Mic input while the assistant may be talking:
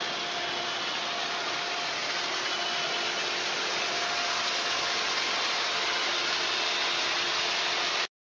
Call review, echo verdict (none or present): none